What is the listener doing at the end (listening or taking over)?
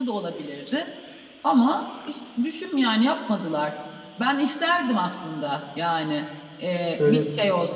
listening